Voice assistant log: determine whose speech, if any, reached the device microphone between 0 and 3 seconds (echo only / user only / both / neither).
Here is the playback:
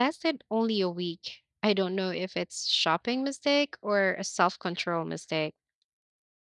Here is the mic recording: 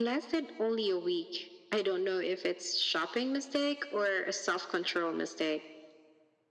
echo only